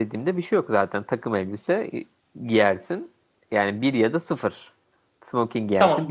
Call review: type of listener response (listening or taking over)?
taking over